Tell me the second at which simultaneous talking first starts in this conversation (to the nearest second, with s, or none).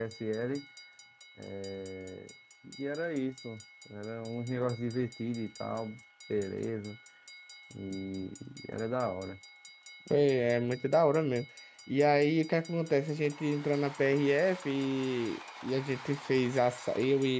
none